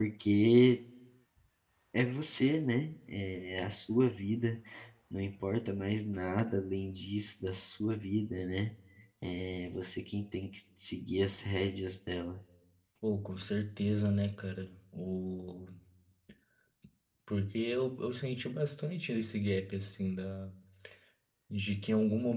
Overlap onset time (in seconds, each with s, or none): none